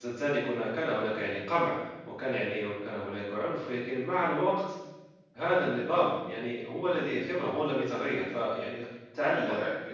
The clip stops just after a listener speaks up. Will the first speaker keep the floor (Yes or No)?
Yes